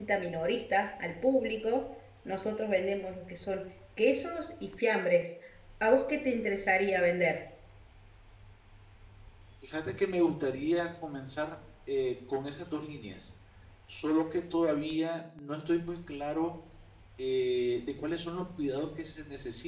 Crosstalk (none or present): none